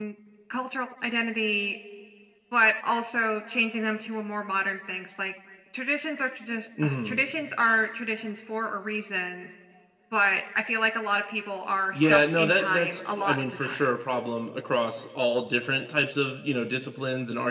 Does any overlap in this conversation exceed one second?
Yes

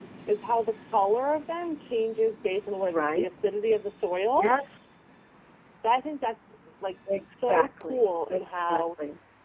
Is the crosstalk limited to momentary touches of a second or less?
No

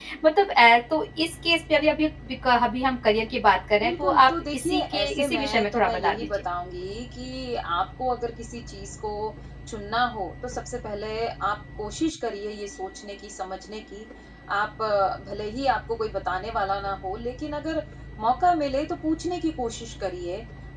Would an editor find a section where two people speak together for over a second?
Yes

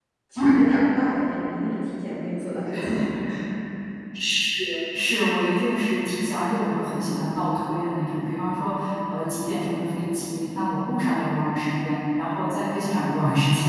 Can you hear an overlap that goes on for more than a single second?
No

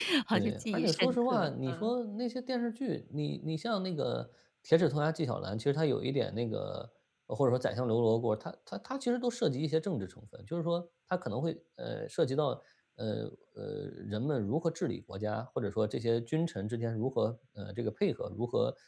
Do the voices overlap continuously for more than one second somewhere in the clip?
Yes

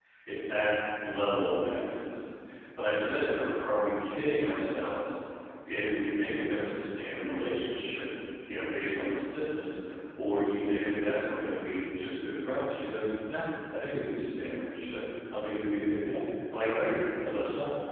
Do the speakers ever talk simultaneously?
No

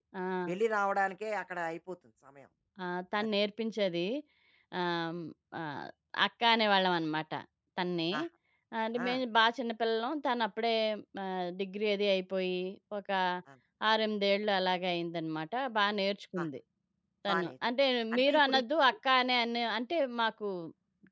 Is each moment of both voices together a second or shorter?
Yes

